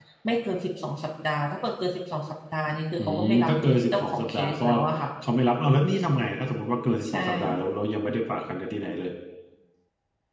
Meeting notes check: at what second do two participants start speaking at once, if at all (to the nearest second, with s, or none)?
3 s